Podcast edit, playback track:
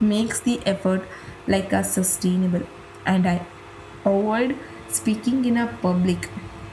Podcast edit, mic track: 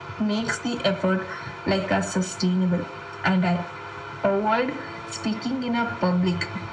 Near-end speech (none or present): none